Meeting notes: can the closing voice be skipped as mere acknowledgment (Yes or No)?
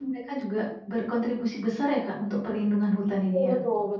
No